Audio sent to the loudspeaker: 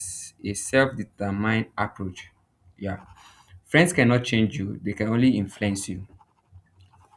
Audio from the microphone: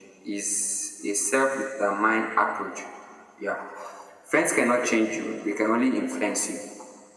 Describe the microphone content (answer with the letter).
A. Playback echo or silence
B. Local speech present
A